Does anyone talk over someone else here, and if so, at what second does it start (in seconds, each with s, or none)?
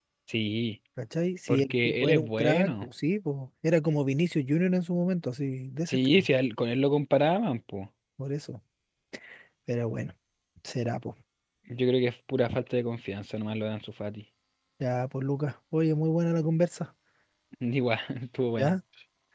1.5 s